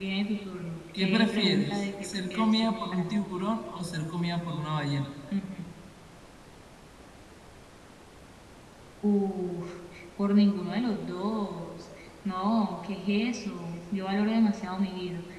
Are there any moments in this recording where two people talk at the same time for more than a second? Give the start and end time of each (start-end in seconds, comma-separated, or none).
1.0-3.1